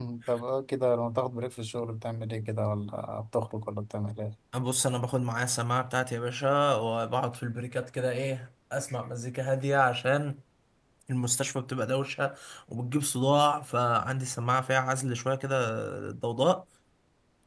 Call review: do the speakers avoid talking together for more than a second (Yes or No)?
Yes